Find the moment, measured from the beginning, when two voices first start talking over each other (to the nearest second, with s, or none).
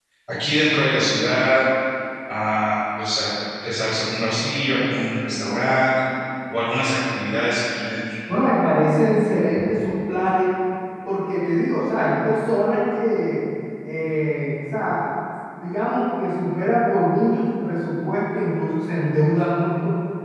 none